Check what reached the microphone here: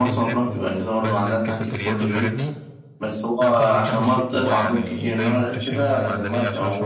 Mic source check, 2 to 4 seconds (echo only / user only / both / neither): both